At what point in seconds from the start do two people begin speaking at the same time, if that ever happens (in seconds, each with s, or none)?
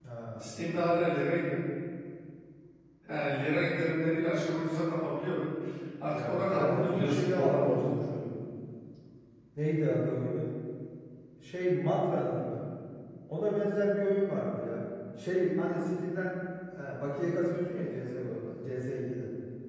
6.1 s